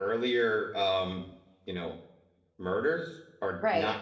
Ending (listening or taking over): listening